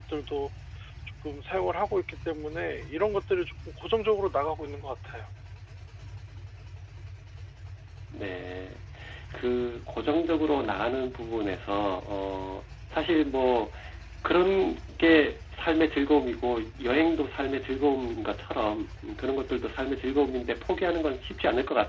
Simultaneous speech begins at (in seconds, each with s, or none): none